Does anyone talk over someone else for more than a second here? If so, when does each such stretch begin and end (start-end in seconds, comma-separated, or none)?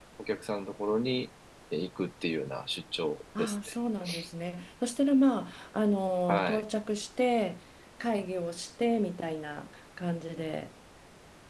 none